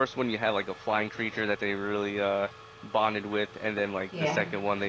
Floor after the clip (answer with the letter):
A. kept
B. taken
A